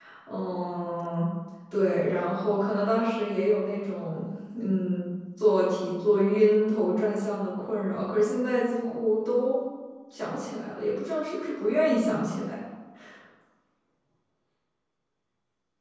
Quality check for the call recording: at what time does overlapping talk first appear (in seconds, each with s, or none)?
none